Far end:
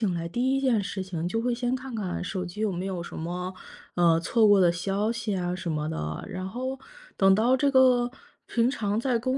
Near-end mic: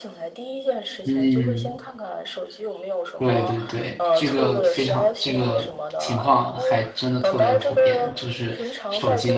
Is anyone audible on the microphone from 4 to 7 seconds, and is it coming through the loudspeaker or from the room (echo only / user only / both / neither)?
both